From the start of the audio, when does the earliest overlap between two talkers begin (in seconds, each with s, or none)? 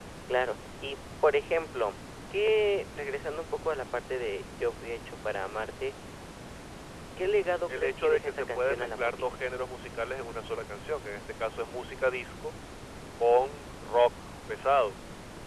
7.8 s